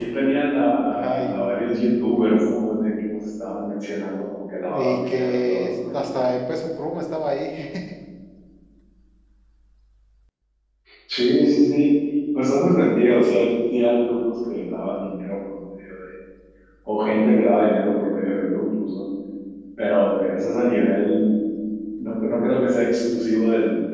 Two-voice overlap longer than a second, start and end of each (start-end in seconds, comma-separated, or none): 4.7-6.1